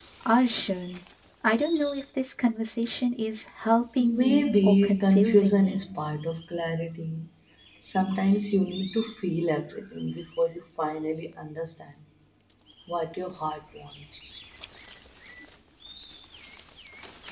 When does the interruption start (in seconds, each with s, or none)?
4.0 s